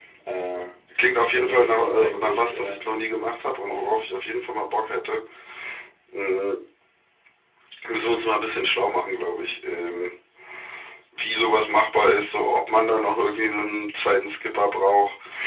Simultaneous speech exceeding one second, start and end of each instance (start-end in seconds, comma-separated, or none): 1.2-2.8